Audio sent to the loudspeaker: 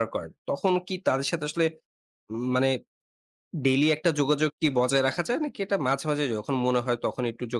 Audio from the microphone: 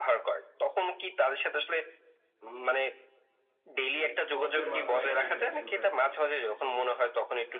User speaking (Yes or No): Yes